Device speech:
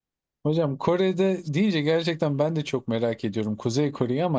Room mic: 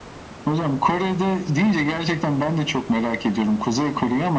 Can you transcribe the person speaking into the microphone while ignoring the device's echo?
none

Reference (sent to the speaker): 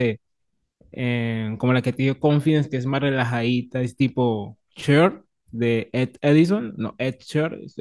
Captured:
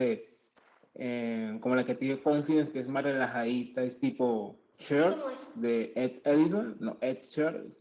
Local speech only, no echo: ¿y cómo es?

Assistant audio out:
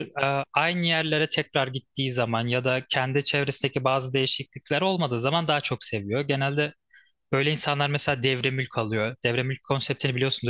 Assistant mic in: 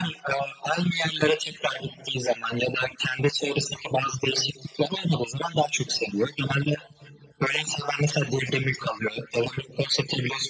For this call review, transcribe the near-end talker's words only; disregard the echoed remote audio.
none

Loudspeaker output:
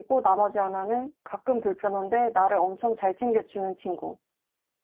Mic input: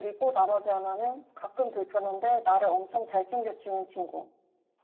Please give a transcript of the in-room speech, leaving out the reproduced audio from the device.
none

